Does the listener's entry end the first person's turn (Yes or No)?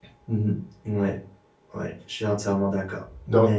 Yes